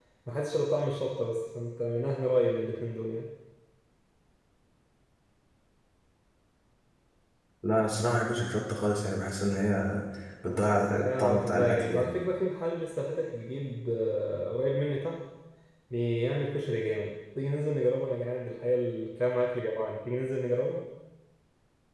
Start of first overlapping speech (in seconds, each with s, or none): 10.4 s